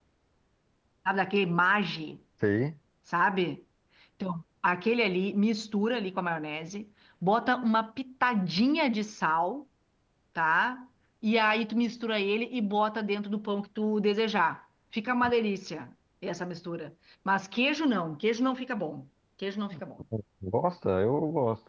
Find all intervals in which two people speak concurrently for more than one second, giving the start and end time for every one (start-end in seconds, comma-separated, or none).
none